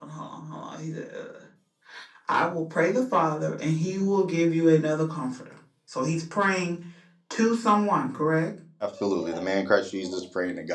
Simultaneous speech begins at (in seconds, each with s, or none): none